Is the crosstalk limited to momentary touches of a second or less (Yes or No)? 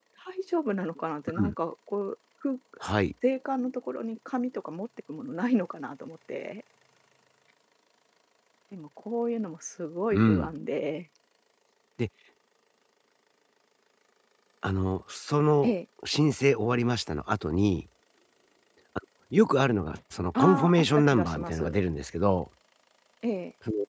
No